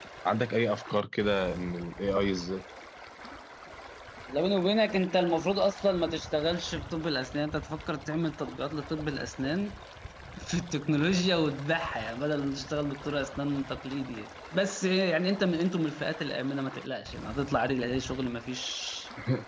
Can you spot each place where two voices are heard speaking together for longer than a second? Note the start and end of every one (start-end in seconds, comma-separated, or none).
none